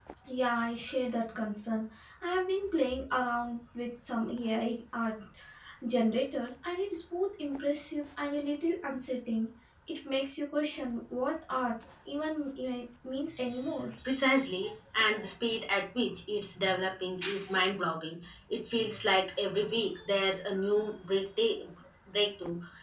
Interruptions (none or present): none